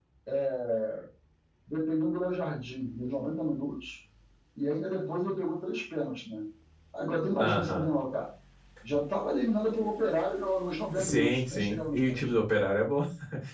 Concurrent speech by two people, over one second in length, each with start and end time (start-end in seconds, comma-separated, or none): 11.0-12.3